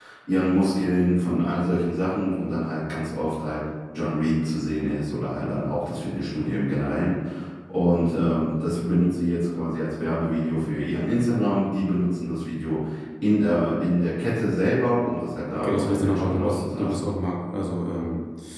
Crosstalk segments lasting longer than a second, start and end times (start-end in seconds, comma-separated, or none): 15.5-17.1